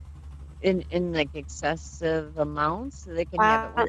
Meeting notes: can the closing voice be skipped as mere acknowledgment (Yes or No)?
No